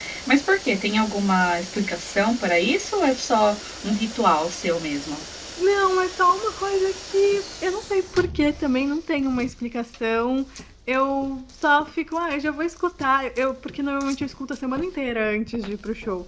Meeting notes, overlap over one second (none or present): none